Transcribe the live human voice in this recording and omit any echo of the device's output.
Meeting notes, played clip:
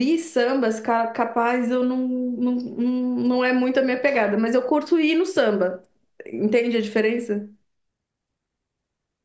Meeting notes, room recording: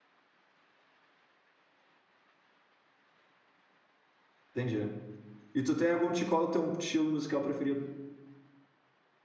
entendi. E tu tem algum ti- qual é o teu estilo musical preferido?

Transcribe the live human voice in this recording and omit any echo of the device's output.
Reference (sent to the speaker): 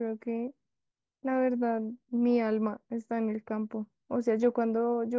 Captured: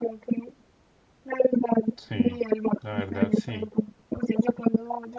Sí, la verdad sí.

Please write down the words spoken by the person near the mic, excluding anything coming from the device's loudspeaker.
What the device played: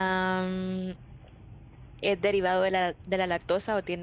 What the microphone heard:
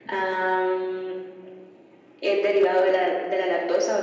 none

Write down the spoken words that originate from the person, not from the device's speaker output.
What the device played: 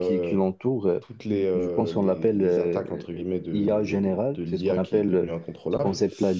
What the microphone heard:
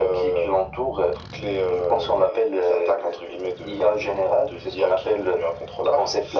none

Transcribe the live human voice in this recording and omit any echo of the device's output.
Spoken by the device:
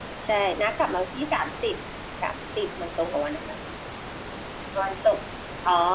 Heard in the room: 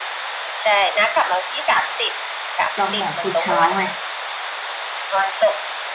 จองหมอพุธเช้าไง

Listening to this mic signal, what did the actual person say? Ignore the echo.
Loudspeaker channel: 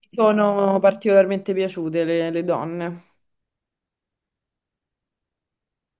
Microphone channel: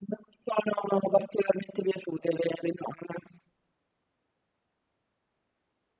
none

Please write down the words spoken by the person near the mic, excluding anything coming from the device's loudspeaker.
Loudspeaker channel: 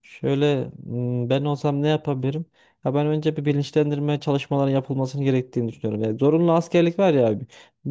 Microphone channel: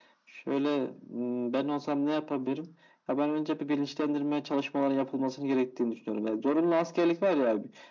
none

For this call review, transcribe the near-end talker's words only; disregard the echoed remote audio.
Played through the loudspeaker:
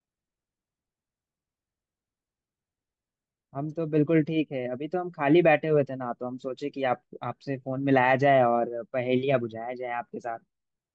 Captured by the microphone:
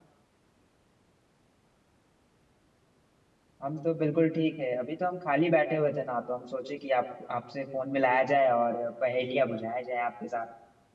none

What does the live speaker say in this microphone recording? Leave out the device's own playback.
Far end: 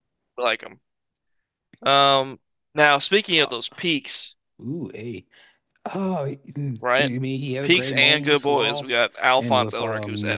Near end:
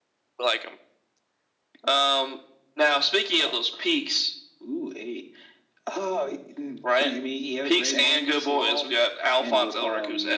none

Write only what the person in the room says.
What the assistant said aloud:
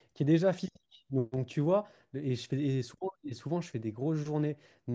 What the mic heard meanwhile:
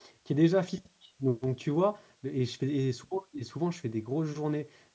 none

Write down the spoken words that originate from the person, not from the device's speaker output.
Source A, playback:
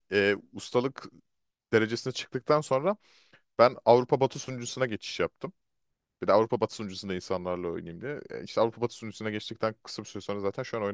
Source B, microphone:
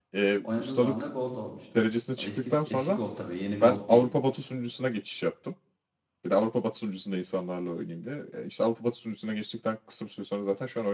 oynadığım zaman da gold olmuştum. O eski eski gold tabii, yeni gold değil.

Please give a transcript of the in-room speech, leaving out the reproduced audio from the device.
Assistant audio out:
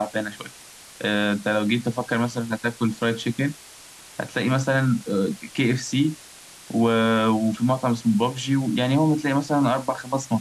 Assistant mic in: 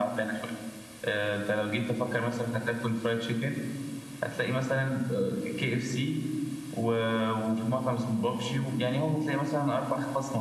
none

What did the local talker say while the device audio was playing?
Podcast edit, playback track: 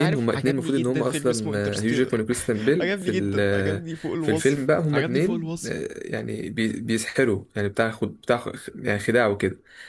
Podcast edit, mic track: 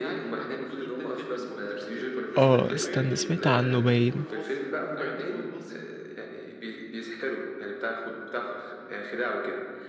اه استنى سمعت عنه باين

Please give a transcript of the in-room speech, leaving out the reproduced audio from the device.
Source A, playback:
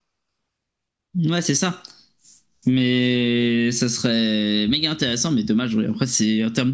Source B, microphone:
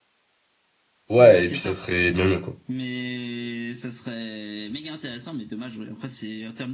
ouais, et puis ça serait bien mieux, quoi.

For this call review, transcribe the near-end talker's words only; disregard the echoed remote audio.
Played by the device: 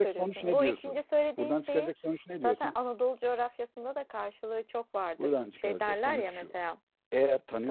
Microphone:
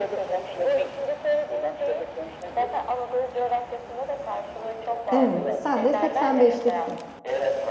Evet. Sen de 85'liksin.

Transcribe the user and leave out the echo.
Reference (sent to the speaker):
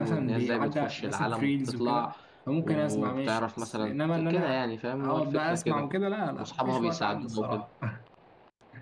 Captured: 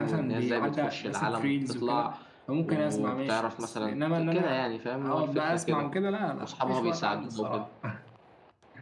none

